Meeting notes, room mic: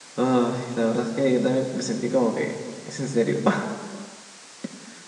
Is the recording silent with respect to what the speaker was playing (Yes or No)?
Yes